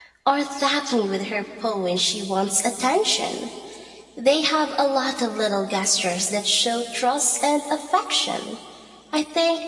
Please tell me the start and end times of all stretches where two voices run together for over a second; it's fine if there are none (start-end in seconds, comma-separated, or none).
none